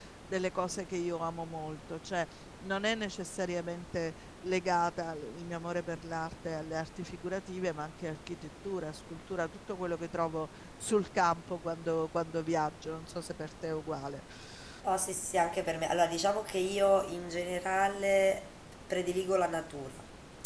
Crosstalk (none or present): none